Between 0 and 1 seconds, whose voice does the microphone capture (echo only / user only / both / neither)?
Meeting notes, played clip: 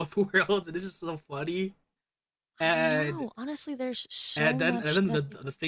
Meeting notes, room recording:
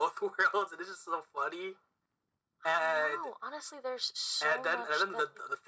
echo only